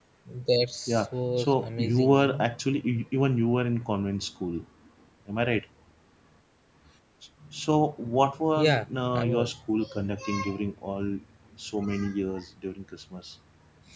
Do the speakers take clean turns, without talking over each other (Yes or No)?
No